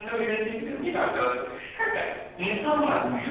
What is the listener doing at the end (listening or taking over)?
listening